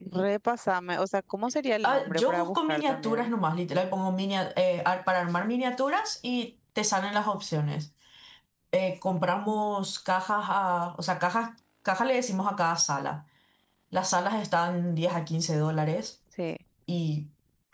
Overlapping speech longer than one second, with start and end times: 1.8-3.3

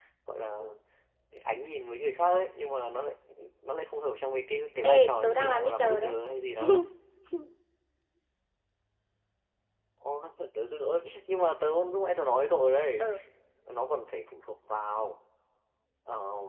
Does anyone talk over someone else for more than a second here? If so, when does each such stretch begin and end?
4.8-6.1

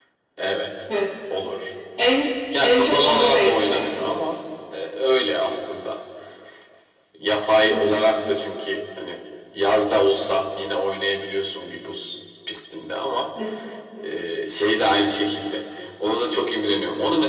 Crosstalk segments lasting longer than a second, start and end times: 2.6-4.1

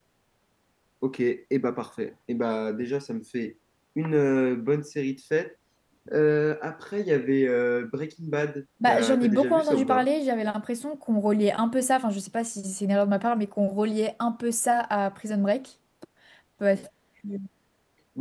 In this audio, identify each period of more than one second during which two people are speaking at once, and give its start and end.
8.9-10.1

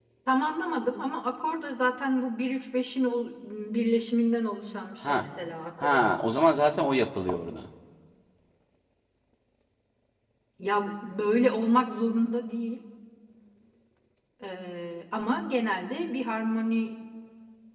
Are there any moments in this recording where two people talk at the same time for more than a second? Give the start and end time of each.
none

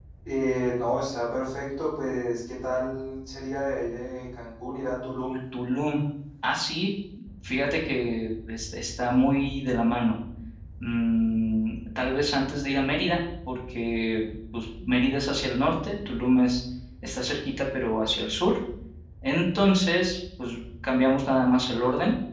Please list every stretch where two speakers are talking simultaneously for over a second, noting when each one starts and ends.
none

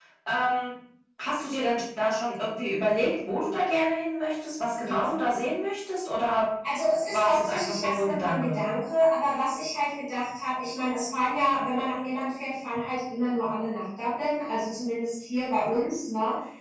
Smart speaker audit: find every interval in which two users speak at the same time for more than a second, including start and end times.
7.1-8.6

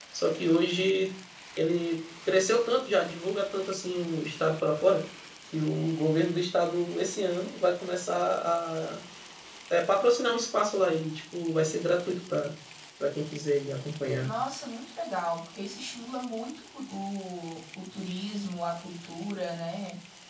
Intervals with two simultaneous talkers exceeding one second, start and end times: none

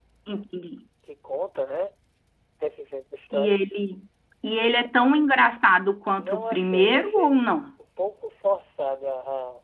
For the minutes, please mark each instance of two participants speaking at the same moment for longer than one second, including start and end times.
6.2-7.7

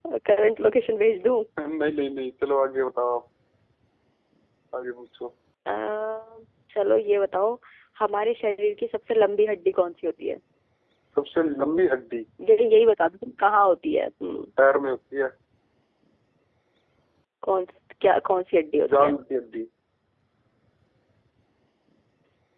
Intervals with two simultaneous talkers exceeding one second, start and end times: none

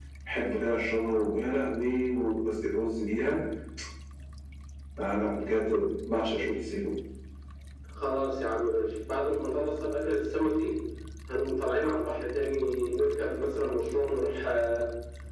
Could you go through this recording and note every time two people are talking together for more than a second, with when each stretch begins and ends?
none

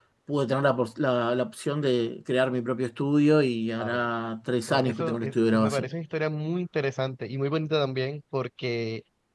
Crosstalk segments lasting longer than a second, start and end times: 4.7-5.9

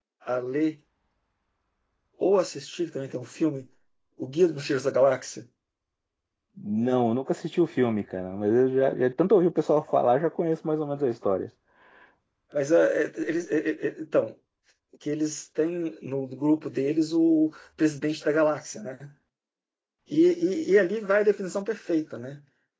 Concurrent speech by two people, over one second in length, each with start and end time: none

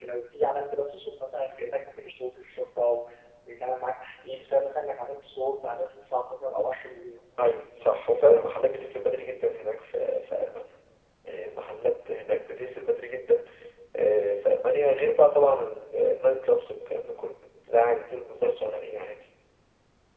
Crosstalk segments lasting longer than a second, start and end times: none

